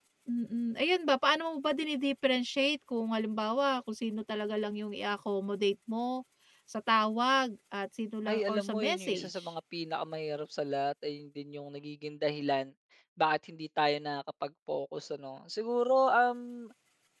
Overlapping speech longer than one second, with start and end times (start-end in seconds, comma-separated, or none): 8.2-9.5